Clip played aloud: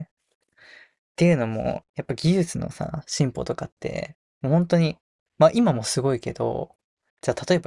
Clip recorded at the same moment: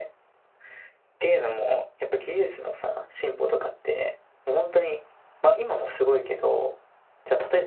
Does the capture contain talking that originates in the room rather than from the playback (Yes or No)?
No